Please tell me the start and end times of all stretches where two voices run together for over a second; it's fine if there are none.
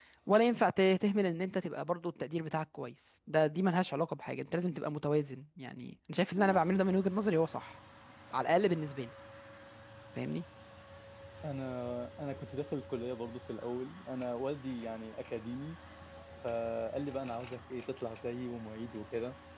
none

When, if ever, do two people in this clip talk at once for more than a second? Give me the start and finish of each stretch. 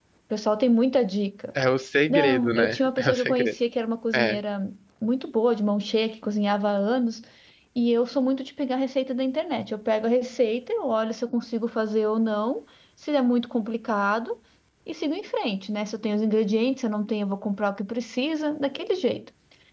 2.1-3.5

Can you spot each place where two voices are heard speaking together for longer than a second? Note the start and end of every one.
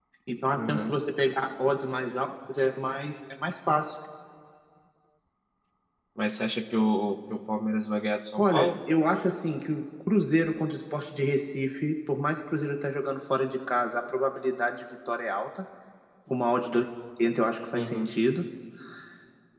none

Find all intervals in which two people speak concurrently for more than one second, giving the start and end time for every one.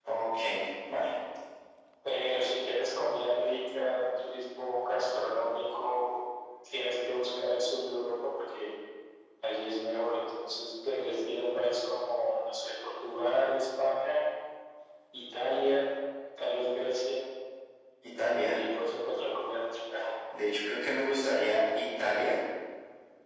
none

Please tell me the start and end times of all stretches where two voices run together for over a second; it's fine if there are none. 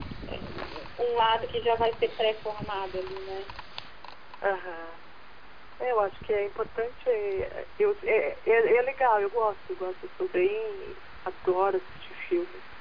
none

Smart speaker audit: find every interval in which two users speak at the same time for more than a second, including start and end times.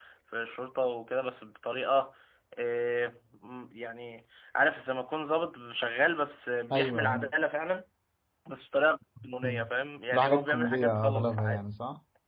10.1-11.6

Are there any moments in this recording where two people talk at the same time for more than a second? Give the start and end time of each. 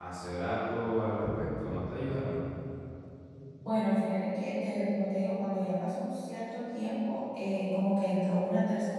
none

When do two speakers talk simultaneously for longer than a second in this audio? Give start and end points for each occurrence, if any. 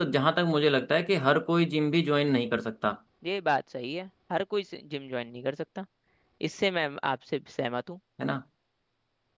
none

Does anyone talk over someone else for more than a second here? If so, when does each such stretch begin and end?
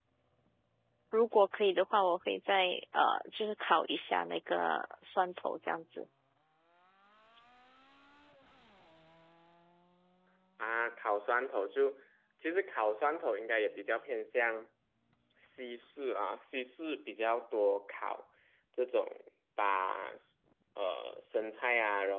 none

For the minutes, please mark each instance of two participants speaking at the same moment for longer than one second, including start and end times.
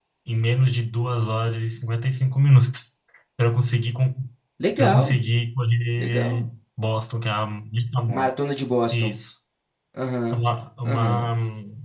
none

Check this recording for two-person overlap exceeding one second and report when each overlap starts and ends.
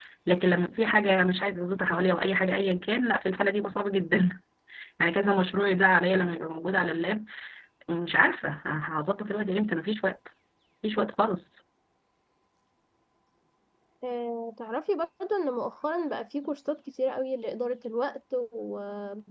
none

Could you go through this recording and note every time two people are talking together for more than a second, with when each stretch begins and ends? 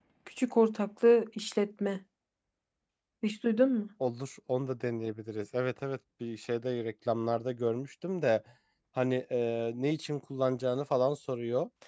none

